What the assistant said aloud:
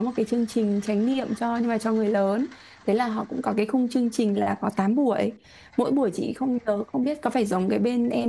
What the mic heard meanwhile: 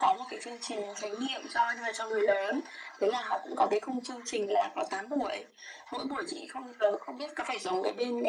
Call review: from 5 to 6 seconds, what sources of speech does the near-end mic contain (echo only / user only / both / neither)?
echo only